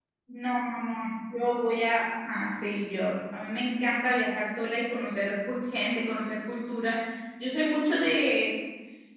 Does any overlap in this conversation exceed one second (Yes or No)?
No